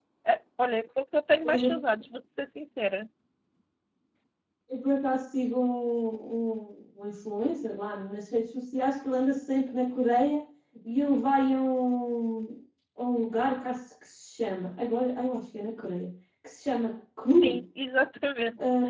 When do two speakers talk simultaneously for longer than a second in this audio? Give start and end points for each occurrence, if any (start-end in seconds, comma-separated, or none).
none